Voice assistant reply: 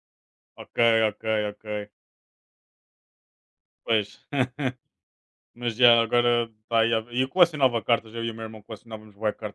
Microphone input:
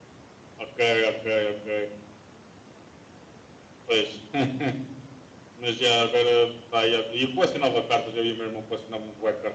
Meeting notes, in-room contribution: none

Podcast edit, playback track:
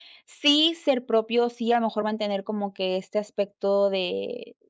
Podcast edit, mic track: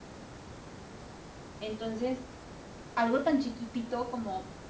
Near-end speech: present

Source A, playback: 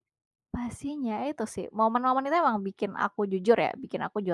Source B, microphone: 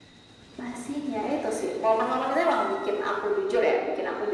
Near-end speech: none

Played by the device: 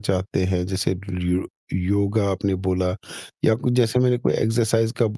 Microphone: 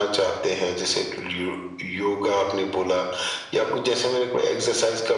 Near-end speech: none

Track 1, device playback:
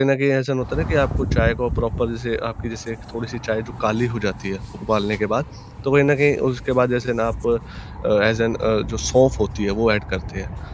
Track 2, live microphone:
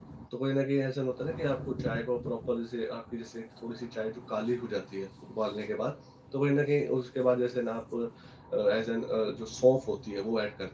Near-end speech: none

